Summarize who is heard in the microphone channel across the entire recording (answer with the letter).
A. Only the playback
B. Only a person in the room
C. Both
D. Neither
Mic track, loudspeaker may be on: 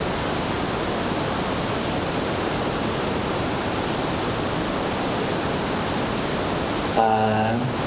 B